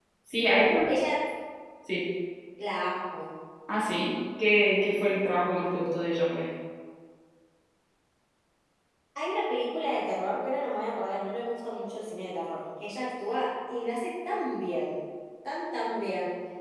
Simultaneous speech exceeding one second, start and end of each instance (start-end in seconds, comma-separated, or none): none